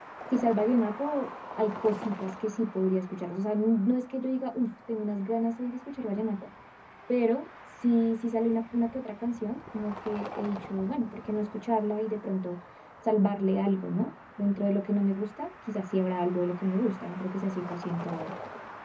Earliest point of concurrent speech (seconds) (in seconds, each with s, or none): none